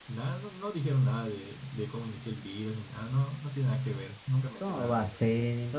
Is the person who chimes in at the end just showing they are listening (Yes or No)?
No